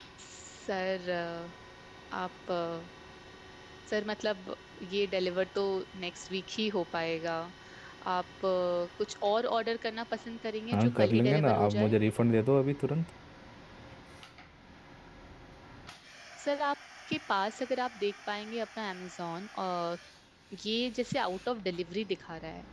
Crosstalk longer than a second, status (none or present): present